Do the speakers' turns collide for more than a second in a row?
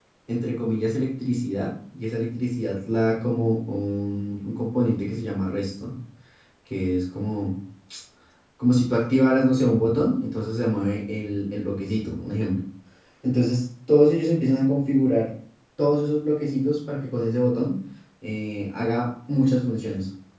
No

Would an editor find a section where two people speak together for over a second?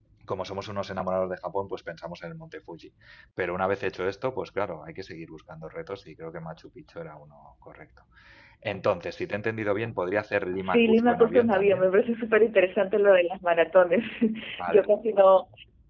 Yes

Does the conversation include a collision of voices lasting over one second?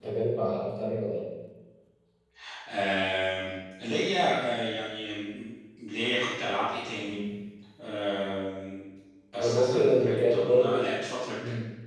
Yes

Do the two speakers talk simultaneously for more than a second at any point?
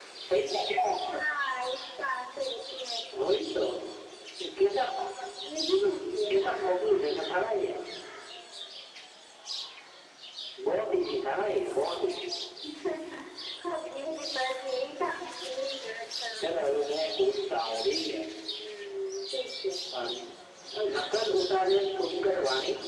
Yes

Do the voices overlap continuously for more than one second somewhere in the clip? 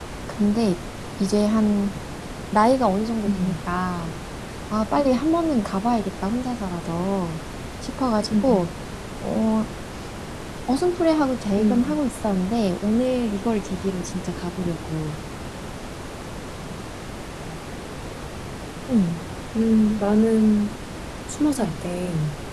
No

